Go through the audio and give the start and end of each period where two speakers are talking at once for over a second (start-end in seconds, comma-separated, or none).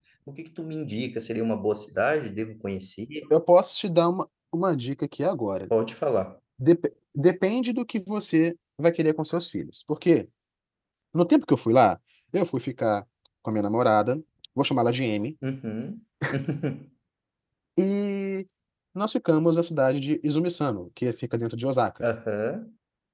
none